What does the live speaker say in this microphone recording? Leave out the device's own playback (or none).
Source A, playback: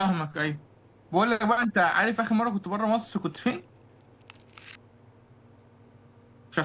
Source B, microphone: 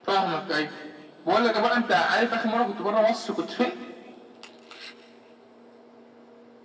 none